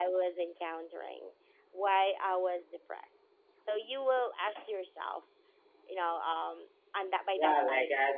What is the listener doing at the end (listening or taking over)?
taking over